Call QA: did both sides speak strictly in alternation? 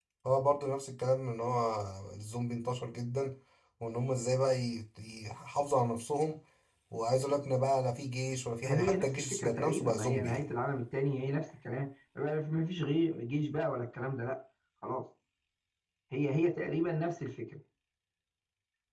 No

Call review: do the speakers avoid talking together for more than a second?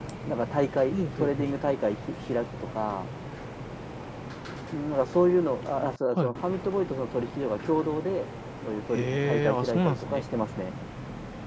No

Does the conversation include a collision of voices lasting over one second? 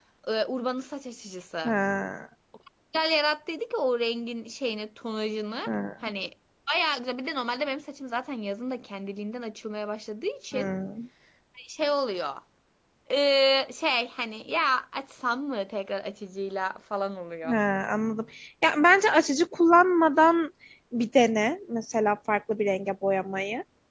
No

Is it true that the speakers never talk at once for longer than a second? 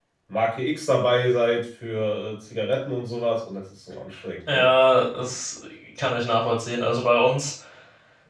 Yes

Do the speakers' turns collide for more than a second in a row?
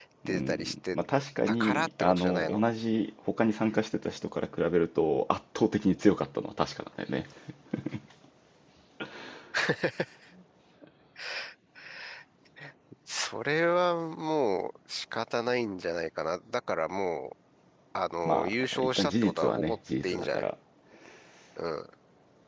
Yes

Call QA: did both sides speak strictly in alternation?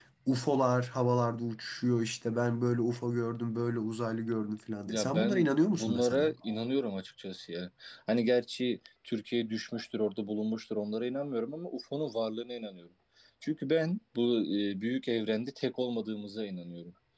No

